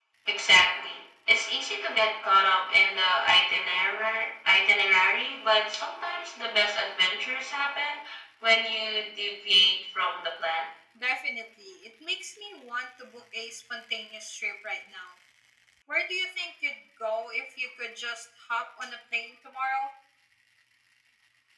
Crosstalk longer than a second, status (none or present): none